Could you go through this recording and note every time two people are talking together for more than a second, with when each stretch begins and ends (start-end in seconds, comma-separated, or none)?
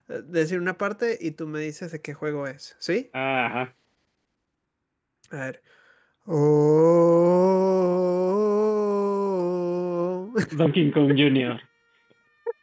none